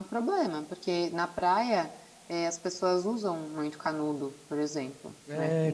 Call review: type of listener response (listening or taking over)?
taking over